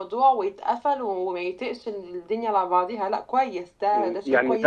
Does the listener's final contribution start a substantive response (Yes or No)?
Yes